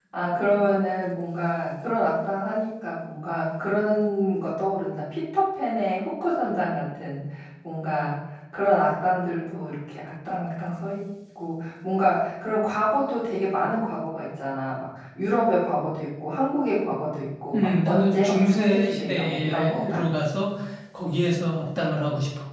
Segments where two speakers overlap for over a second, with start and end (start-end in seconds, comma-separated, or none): 17.5-20.1